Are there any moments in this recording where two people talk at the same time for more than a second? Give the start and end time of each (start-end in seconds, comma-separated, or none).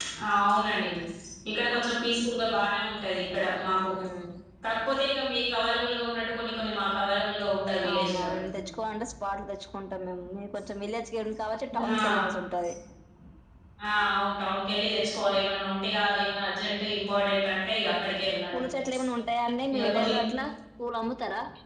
none